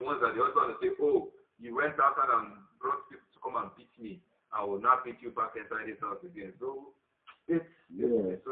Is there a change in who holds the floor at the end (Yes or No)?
Yes